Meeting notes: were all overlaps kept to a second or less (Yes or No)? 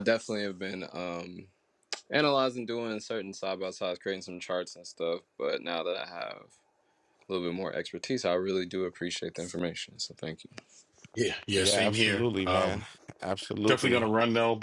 No